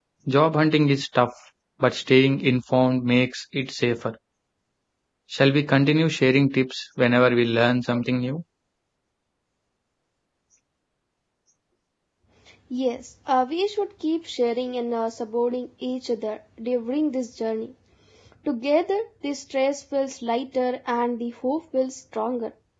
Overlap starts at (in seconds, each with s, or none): none